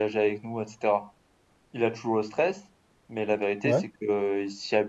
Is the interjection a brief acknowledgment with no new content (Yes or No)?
Yes